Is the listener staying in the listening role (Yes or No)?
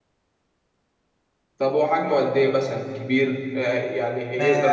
No